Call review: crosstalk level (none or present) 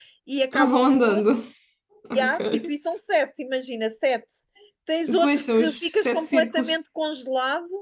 present